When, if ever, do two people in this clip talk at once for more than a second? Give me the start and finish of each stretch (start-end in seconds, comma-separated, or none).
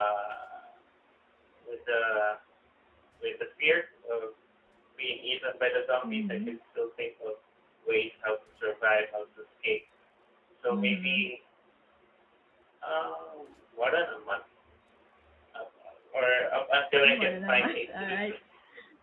17.0-18.3